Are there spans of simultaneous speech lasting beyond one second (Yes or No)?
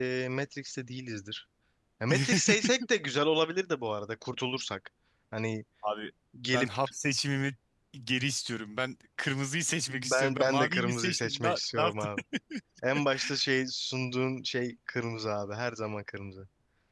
Yes